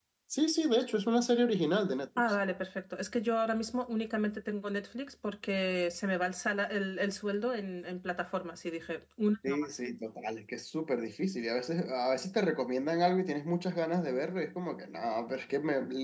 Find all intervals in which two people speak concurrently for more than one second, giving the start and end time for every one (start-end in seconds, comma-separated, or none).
none